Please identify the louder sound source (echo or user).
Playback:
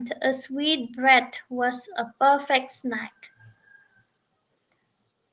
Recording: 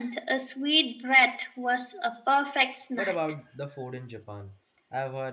echo